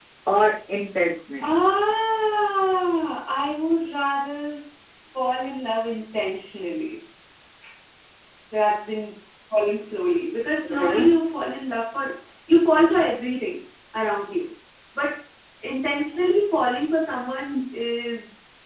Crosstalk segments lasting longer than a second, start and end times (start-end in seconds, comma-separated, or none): none